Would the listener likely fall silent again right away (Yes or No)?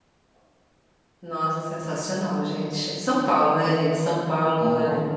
Yes